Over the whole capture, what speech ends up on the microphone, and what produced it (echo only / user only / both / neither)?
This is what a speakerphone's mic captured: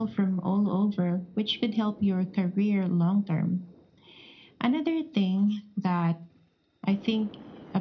echo only